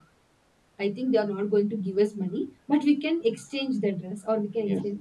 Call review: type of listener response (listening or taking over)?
taking over